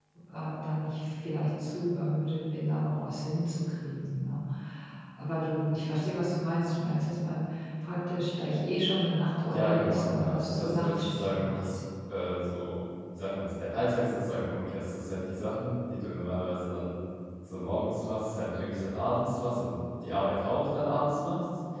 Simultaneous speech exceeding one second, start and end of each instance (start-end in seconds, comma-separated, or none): 9.5-11.6